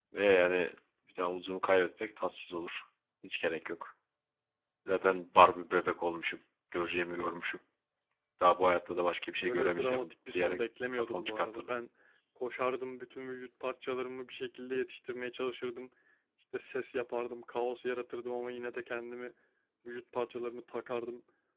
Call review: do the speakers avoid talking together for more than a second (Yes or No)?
No